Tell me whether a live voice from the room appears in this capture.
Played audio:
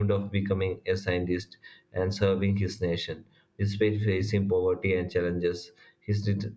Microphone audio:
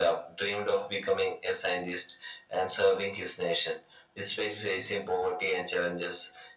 No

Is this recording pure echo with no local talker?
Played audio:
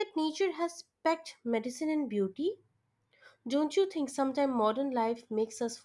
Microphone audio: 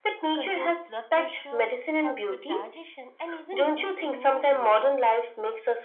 No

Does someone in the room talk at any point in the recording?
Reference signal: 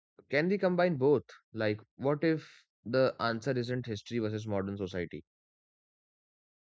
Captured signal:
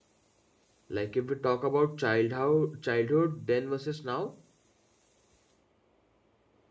Yes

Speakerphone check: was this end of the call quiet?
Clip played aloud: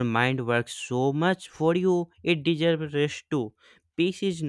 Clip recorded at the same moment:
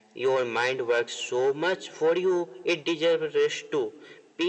Yes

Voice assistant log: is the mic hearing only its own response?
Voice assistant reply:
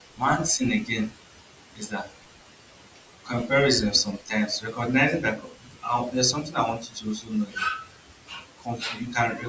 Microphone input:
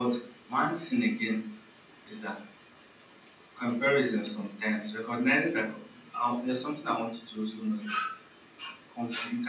Yes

